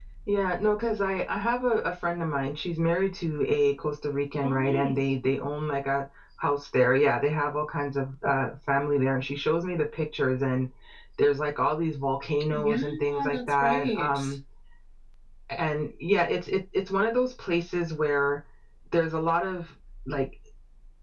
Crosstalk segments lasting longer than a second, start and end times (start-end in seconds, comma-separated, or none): 12.5-14.2